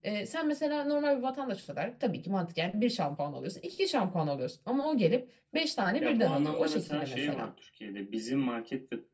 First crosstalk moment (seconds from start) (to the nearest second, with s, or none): 6 s